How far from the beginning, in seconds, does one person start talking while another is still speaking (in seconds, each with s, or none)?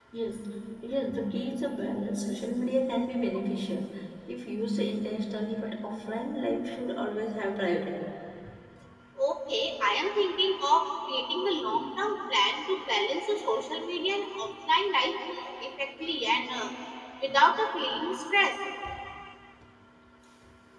none